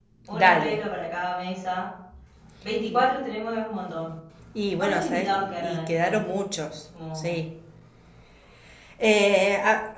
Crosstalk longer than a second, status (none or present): present